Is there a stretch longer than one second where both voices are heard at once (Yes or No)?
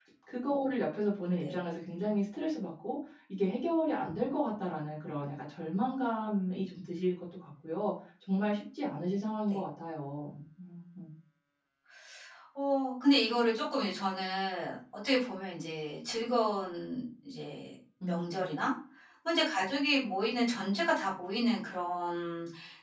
No